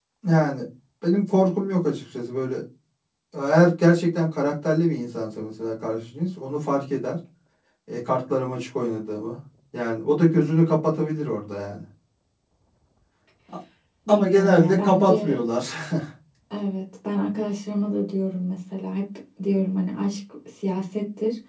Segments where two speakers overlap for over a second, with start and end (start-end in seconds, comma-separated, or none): 14.1-15.4